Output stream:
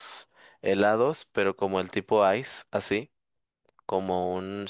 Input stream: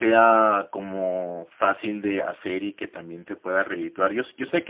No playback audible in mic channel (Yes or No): Yes